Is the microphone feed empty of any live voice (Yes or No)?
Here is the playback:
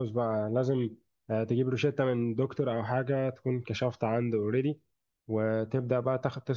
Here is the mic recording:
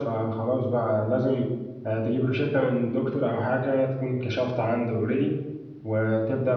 Yes